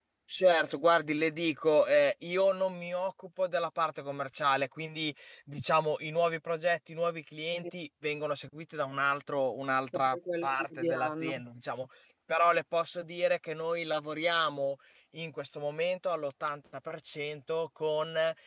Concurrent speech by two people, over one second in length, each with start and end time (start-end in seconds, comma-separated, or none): 9.9-11.3